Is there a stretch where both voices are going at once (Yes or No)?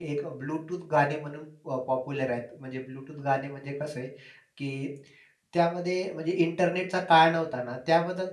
No